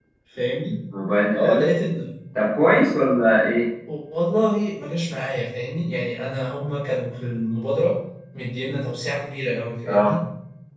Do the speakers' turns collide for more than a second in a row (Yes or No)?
No